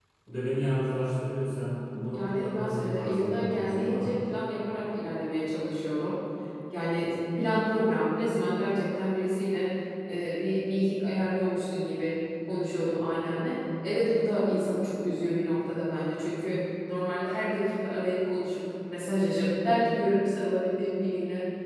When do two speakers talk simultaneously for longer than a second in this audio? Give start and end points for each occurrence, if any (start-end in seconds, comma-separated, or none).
2.1-4.1